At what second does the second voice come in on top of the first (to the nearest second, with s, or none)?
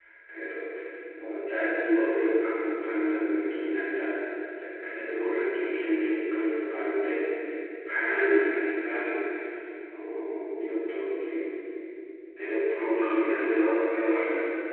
13 s